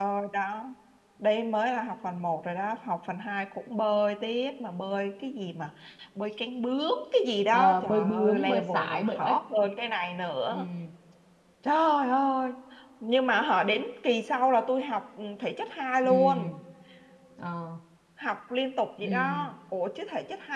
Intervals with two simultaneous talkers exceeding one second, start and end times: 7.5-9.4

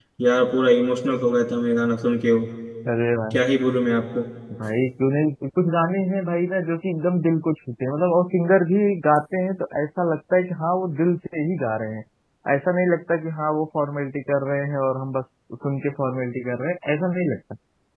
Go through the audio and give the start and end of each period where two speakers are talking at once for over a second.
none

